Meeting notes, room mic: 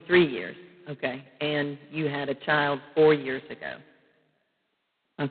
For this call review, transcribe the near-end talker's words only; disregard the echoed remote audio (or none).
none